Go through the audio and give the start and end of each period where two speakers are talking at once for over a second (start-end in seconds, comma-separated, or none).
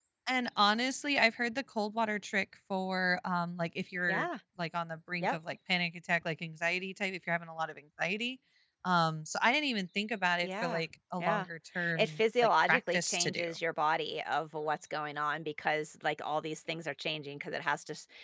11.9-13.4